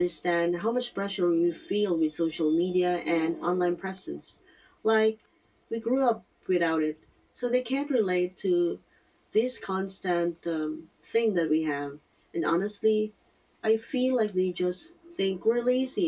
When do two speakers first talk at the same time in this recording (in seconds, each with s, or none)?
none